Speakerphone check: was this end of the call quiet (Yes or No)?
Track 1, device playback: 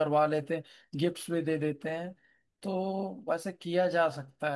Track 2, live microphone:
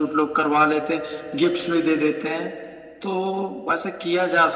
Yes